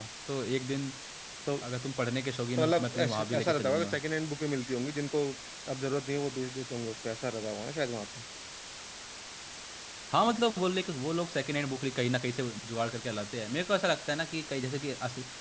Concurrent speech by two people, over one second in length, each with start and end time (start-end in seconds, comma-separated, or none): 2.6-4.0